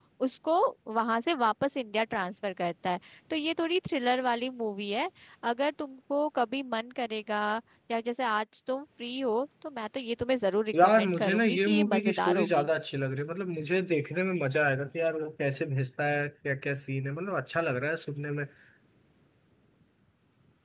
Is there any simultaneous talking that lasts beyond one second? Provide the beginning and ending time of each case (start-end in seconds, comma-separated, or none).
10.8-12.7